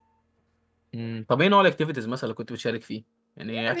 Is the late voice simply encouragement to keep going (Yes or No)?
No